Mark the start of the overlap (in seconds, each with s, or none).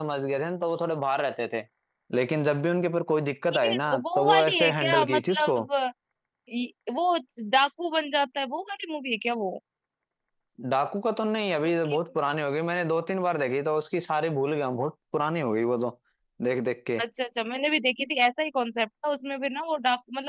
3.5 s